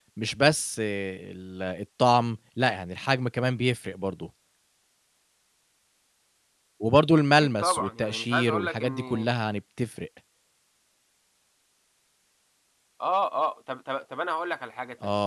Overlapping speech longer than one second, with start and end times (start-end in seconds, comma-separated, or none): 7.4-9.3